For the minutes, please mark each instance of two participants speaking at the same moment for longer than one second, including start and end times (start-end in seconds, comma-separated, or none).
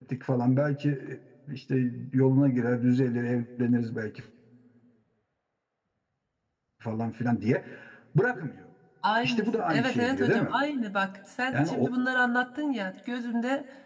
9.2-10.6